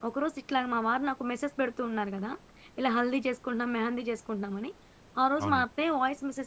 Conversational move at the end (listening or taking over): listening